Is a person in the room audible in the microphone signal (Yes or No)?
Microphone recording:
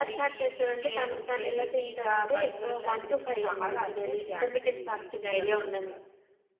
No